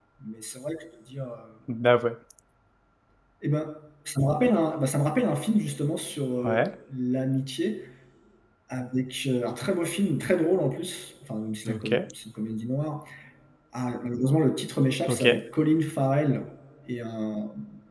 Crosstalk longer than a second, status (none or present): none